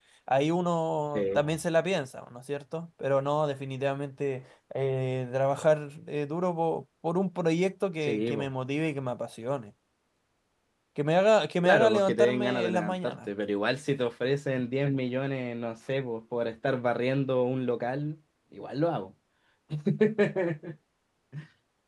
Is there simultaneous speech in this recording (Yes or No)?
Yes